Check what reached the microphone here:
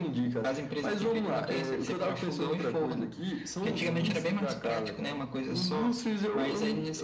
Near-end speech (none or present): present